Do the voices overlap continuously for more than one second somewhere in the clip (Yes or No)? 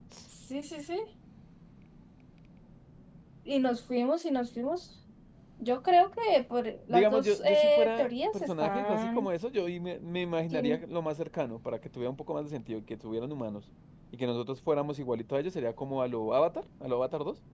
Yes